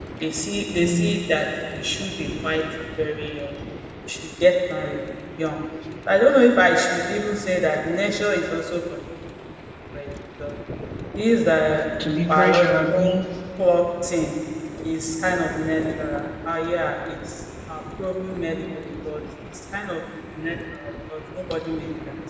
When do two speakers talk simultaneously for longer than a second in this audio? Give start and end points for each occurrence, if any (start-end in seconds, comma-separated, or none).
12.0-13.2